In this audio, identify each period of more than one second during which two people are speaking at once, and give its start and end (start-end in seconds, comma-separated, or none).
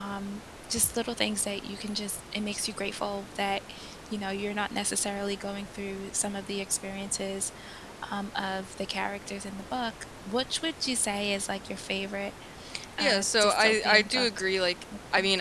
13.0-14.3